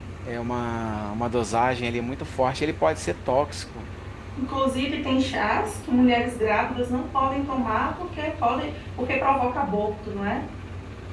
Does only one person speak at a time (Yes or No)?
Yes